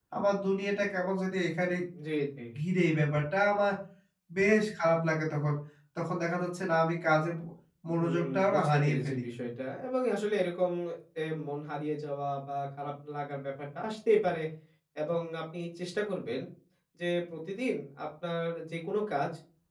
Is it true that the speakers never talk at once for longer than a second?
No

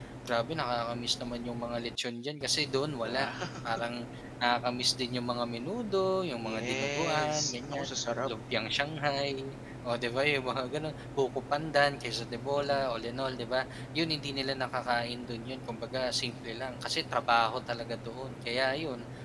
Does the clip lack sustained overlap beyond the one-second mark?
No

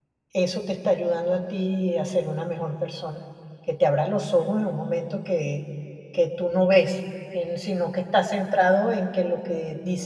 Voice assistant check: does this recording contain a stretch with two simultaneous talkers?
No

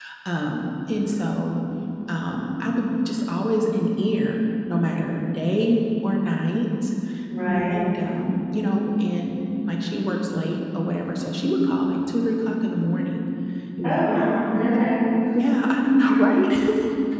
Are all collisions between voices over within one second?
Yes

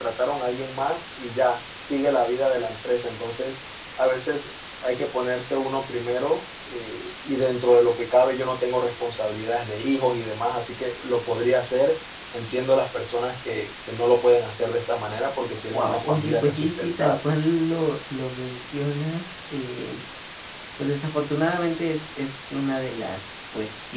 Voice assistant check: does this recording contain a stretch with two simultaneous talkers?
Yes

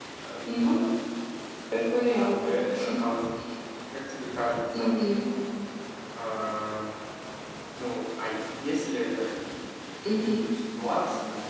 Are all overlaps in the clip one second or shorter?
Yes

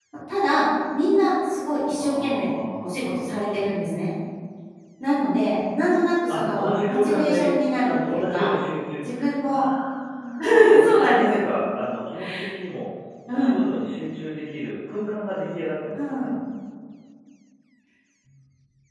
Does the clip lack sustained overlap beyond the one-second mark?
No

